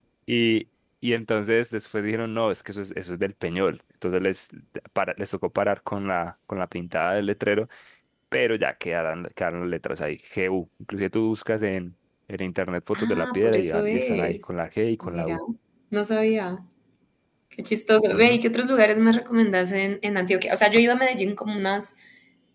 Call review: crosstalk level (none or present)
present